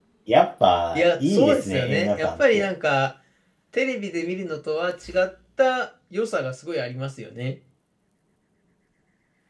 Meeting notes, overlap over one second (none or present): present